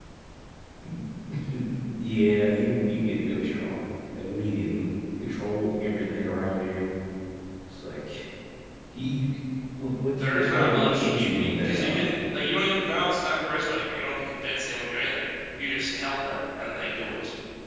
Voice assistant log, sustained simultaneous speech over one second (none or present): present